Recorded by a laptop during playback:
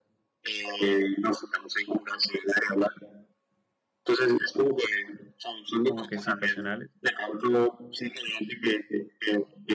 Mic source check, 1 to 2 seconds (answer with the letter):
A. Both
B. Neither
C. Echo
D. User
C